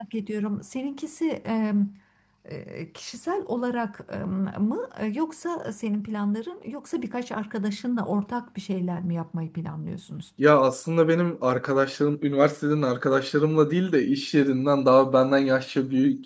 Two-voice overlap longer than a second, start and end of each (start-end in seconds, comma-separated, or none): none